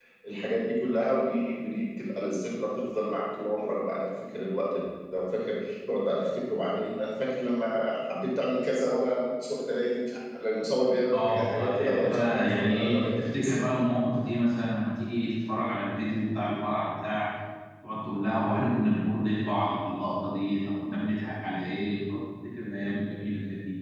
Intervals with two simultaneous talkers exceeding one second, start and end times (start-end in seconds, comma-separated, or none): 11.1-13.5